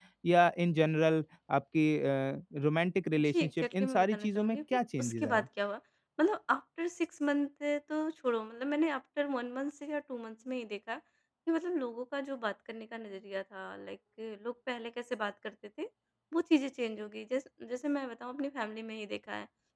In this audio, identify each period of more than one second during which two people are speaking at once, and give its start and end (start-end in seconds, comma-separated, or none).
3.2-5.5